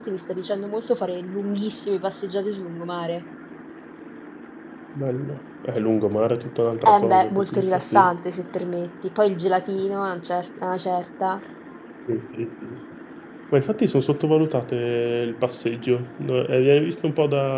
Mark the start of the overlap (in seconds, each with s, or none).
6.8 s